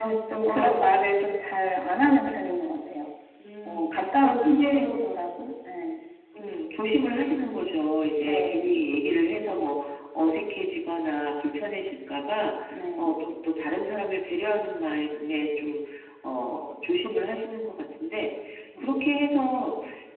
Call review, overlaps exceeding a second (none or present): present